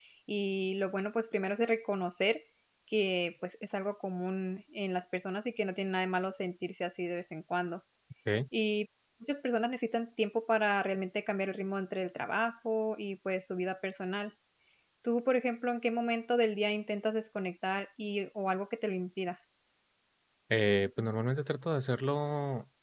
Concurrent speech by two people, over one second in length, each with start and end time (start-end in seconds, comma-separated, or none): none